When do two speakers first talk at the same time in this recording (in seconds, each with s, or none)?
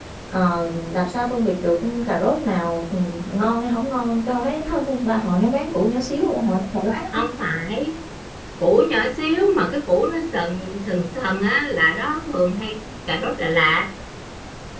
none